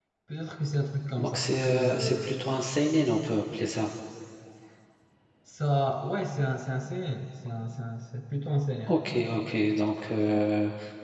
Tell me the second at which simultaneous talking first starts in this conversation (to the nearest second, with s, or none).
1 s